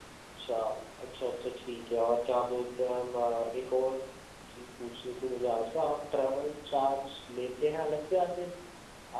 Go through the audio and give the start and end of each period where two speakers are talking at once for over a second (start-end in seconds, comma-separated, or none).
none